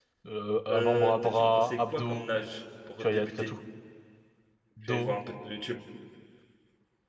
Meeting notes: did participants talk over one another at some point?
Yes, from 0.7 s

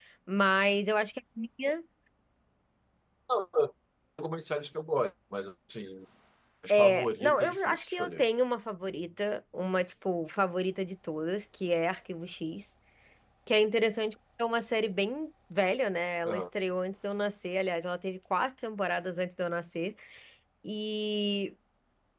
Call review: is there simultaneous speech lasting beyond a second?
Yes, from 6.7 s

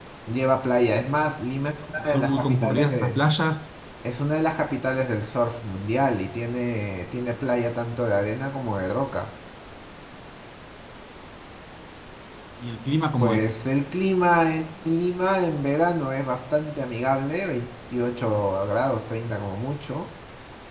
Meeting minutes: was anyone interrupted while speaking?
Yes, from 2.0 s

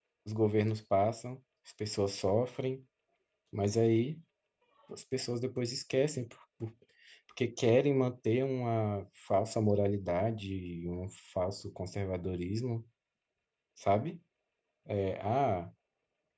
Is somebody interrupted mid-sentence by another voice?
No

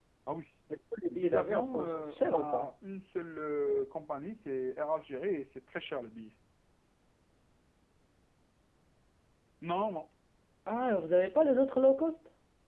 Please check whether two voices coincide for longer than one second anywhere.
Yes, from 1.1 s

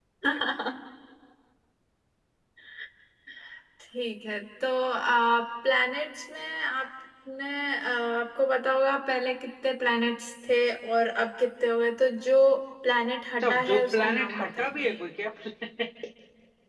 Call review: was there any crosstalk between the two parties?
Yes, from 13.4 s

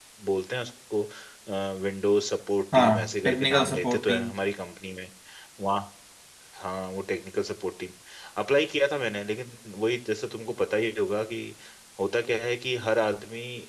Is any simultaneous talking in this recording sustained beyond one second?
Yes, from 2.7 s

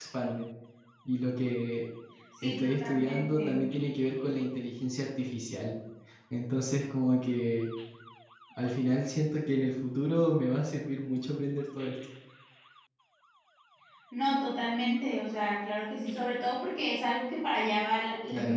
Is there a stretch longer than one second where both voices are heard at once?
Yes, from 2.4 s

